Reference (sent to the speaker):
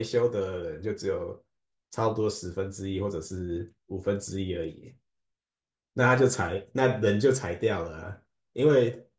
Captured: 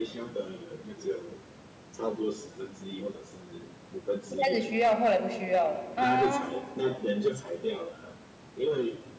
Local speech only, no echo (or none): 一开始需要，后来不需要了啊？